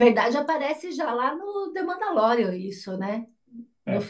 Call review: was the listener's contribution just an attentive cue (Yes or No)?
Yes